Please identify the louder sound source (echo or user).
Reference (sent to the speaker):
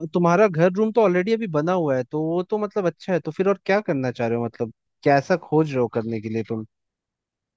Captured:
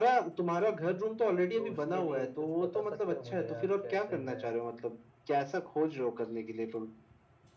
echo